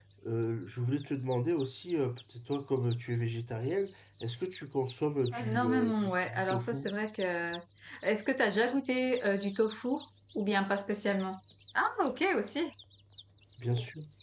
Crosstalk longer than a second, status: present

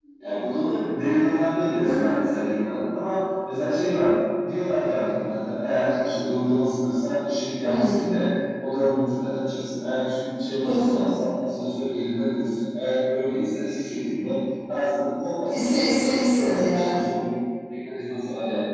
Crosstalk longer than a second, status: present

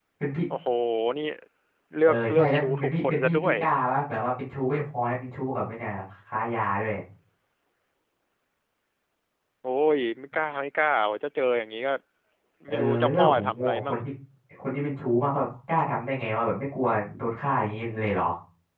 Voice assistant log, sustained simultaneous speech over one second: present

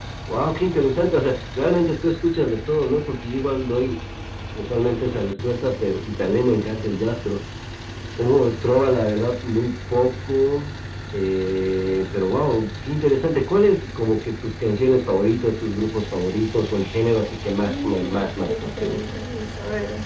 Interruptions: present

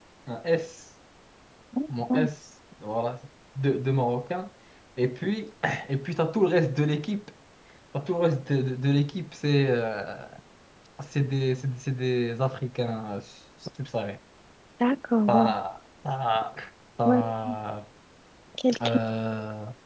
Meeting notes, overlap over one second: none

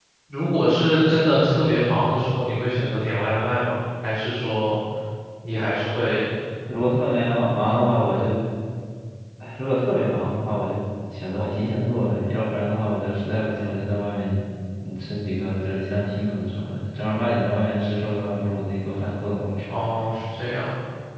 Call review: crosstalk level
none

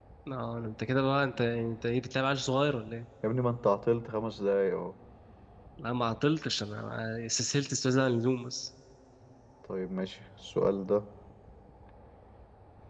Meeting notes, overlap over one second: none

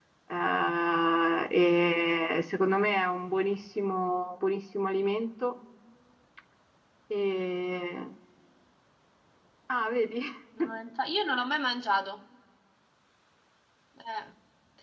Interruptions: none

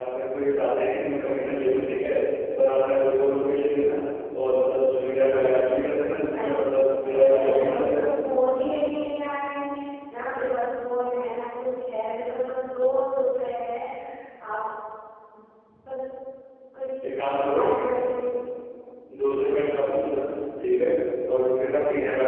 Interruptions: present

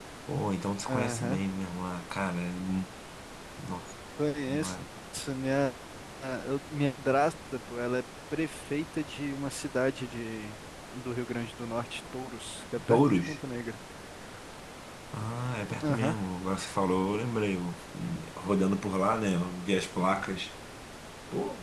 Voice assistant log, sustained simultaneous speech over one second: none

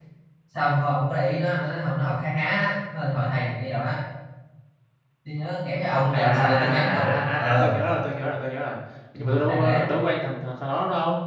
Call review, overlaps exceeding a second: present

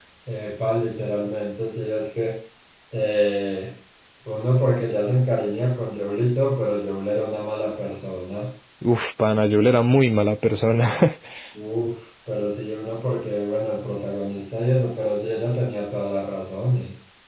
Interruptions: none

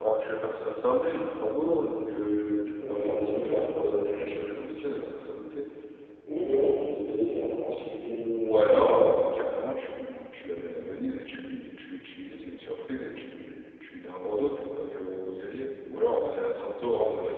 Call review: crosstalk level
present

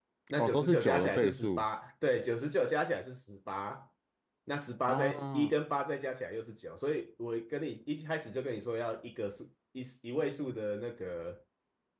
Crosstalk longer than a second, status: present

